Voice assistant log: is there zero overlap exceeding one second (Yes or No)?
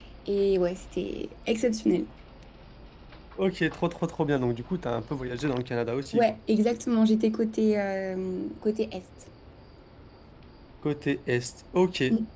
Yes